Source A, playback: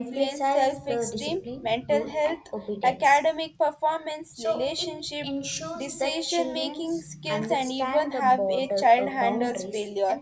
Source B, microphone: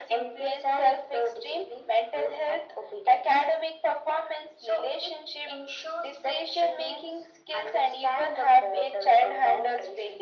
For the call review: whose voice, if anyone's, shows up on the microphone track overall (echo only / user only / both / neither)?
echo only